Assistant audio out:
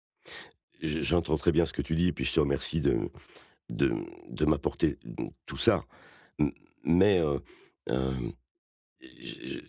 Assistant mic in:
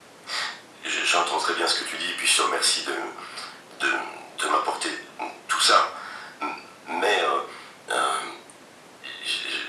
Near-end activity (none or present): none